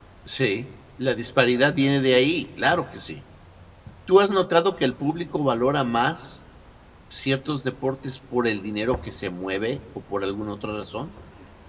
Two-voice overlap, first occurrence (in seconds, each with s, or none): none